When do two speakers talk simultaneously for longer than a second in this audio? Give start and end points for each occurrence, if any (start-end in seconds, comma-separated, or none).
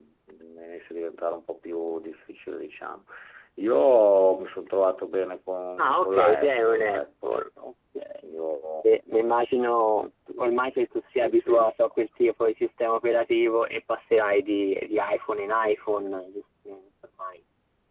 5.8-7.3